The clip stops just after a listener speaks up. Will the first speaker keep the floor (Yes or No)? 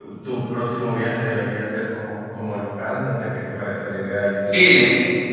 No